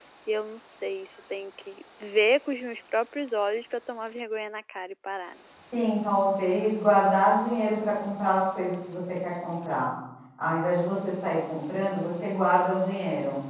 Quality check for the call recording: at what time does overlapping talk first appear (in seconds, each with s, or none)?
none